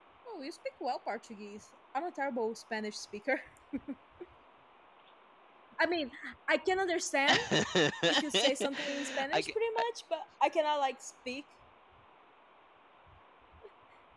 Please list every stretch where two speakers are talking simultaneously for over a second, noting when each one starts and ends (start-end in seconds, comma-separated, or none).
8.1-9.8